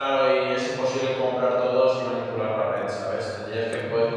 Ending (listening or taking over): listening